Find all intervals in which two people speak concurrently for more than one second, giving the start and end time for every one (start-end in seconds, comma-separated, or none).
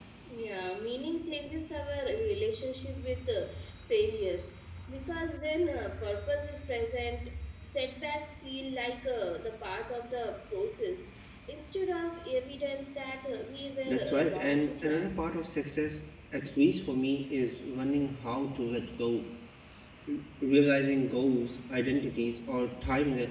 13.9-15.1